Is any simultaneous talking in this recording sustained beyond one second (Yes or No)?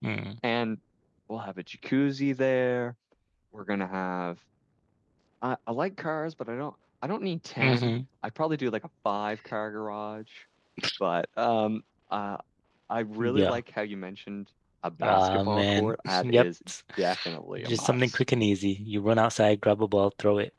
Yes